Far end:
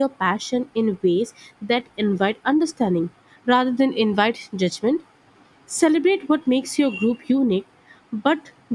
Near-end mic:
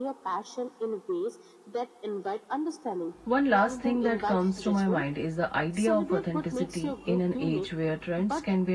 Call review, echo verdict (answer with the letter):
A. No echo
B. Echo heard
B